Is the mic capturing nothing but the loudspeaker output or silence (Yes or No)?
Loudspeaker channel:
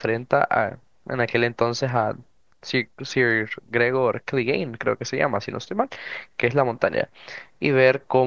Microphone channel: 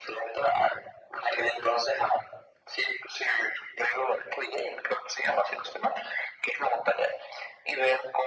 Yes